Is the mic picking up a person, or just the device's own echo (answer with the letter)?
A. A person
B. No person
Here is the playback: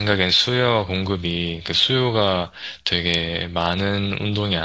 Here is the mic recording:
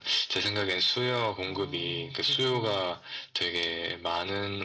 A